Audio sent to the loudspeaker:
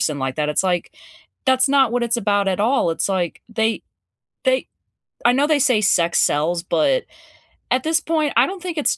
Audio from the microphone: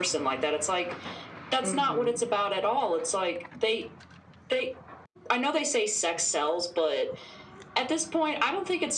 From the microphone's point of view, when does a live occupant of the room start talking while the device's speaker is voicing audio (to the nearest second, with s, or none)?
2 s